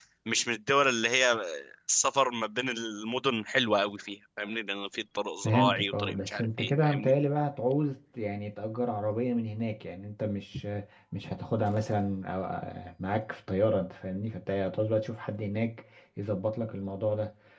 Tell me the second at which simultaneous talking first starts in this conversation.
5.4 s

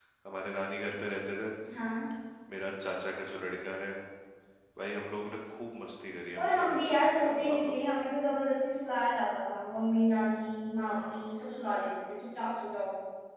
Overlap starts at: 6.5 s

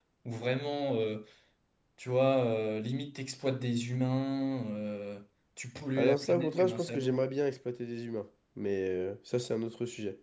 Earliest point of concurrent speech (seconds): 6.0 s

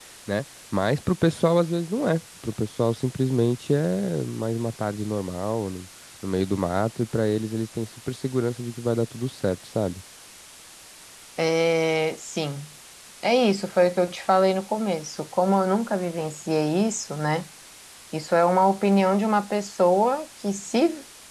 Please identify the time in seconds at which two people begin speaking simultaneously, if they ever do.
none

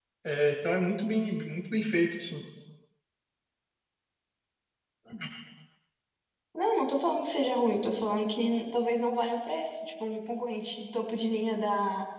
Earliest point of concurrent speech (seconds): none

